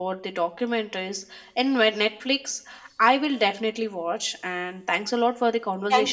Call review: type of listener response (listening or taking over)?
taking over